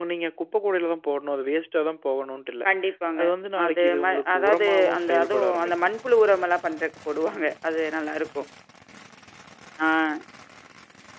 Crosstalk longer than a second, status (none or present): present